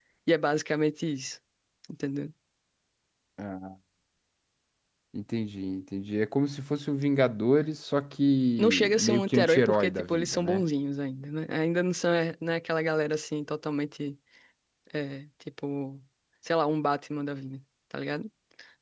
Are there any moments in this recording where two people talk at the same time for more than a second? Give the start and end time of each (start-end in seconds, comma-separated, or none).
8.6-10.6